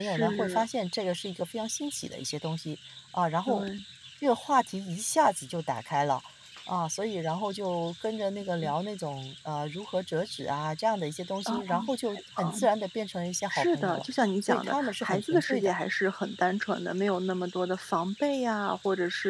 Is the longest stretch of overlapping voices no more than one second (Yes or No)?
No